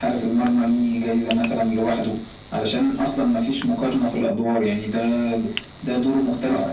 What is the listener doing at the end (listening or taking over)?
listening